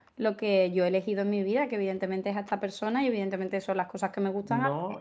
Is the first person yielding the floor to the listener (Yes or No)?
Yes